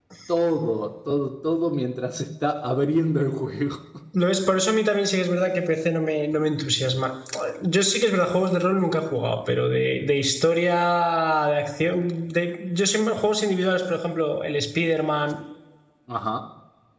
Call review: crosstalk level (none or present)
none